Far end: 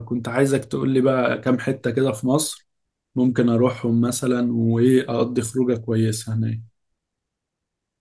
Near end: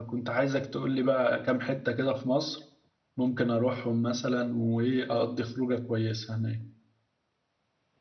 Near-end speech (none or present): none